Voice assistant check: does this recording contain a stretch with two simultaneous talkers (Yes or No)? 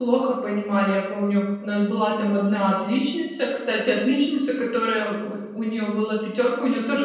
No